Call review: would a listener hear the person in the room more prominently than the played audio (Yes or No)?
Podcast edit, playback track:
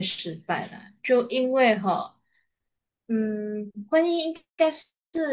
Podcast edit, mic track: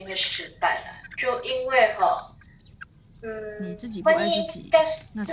No